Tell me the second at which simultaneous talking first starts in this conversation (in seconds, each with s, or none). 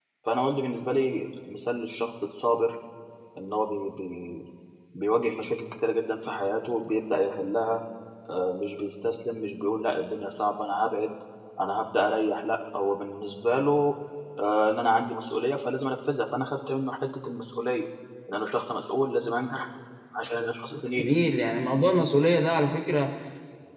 none